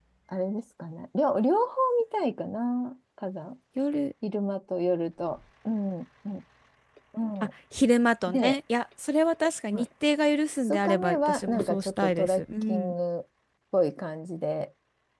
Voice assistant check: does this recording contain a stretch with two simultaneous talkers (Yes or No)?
Yes